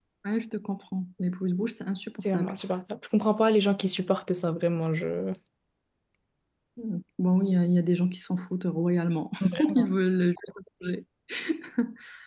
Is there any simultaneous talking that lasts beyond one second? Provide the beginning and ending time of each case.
none

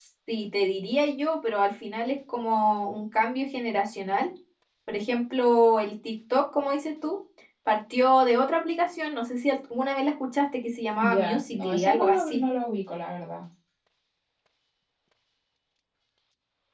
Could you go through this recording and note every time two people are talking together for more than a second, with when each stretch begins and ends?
11.0-12.4

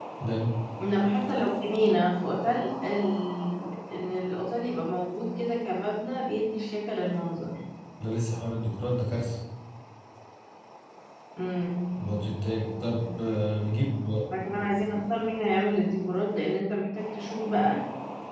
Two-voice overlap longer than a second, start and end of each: none

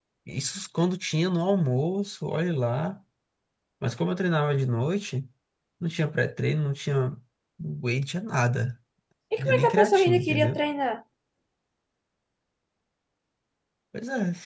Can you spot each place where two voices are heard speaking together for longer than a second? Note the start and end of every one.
9.4-10.6

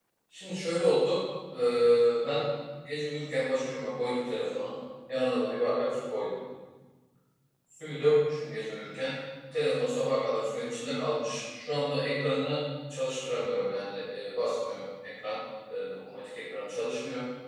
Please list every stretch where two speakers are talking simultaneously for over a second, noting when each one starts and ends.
none

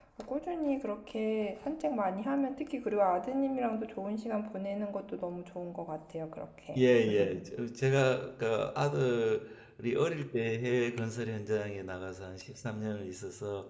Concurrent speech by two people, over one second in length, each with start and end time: none

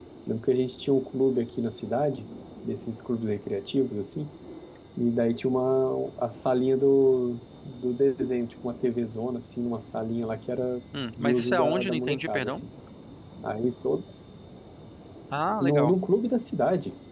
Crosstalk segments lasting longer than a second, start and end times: 11.2-12.6

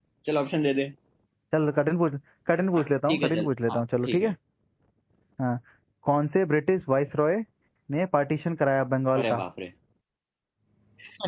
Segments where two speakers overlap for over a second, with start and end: 2.8-4.3

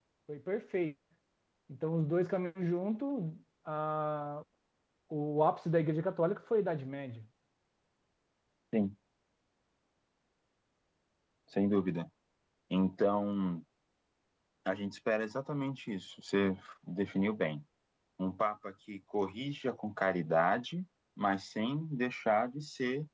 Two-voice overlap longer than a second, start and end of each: none

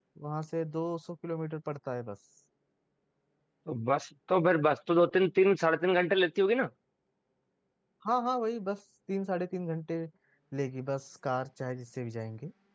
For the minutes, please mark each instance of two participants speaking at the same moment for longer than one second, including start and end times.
none

